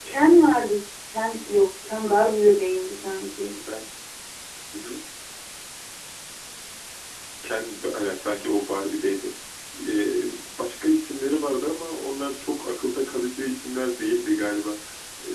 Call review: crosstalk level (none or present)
none